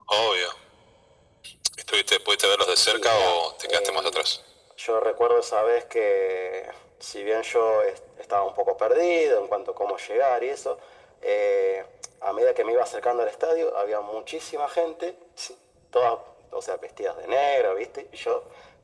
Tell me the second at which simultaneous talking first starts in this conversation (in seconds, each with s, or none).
2.9 s